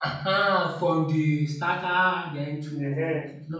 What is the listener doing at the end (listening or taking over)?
taking over